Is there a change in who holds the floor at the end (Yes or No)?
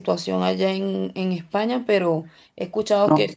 No